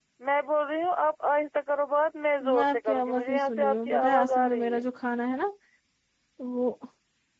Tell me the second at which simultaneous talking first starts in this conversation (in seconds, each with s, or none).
2.4 s